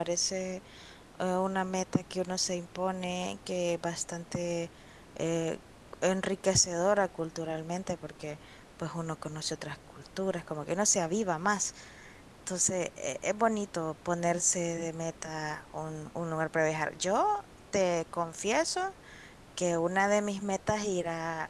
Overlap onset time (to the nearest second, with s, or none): none